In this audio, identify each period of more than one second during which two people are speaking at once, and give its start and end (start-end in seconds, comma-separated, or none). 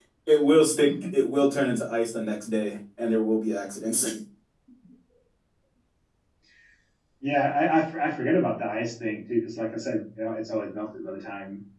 none